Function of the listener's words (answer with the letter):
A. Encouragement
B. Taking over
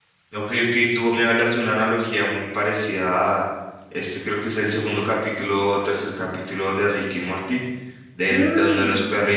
A